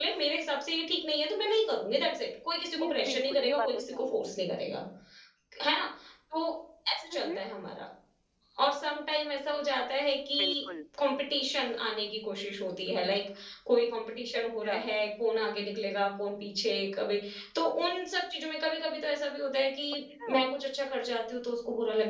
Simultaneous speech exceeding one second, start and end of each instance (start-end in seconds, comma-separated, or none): 2.8-4.2